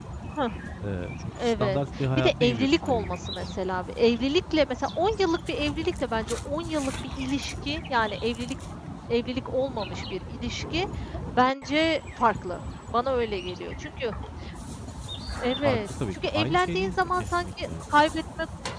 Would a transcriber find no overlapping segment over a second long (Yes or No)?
No